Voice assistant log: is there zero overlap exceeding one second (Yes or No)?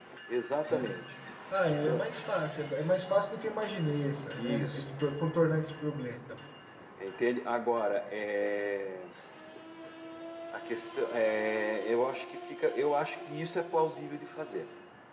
Yes